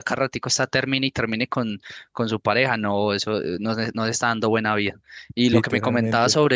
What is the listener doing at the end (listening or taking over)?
listening